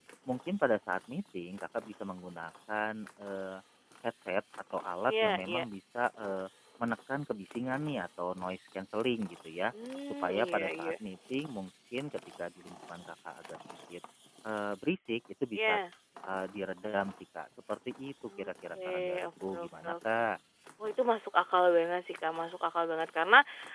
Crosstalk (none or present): present